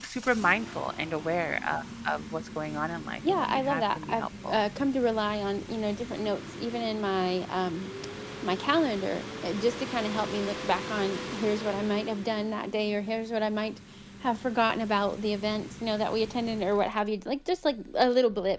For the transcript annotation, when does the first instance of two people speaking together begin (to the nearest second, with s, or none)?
3 s